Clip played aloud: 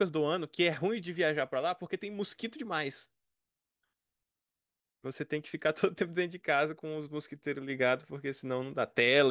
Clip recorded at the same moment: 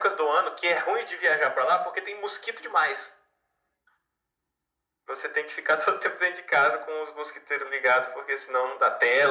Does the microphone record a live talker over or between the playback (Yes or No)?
No